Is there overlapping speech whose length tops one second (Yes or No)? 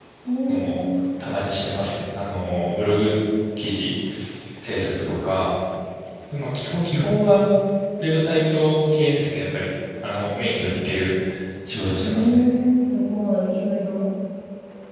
No